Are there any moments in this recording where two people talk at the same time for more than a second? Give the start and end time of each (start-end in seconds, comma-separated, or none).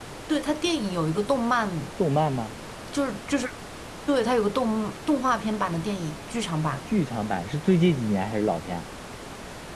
none